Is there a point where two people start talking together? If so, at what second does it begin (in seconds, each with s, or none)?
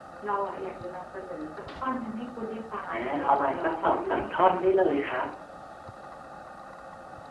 2.9 s